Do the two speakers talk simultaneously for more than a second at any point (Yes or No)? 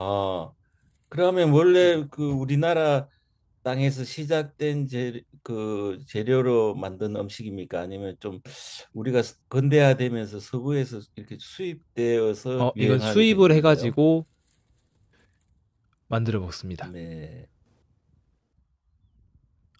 Yes